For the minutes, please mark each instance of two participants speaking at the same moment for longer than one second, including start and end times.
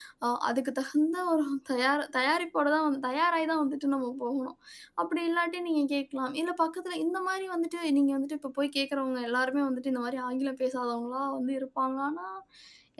none

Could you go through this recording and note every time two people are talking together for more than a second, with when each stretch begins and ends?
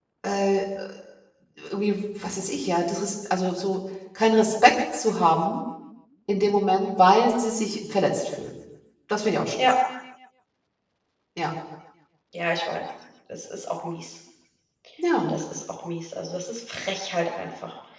none

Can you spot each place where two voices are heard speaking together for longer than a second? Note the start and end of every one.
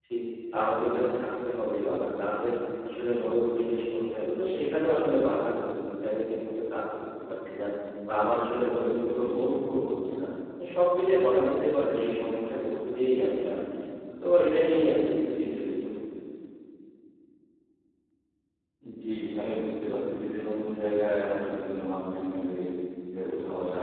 none

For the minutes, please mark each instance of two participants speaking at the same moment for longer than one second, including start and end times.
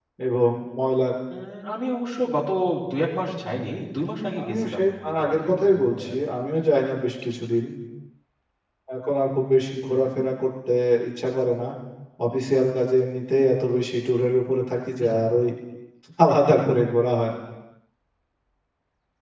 4.4-6.2

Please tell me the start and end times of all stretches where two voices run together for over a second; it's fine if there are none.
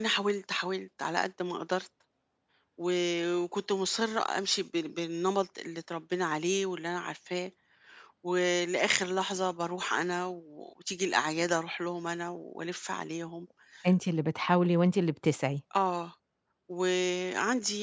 none

